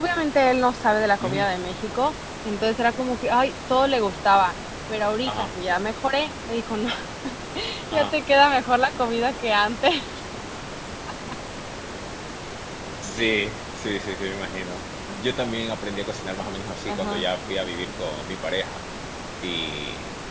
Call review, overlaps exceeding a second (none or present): none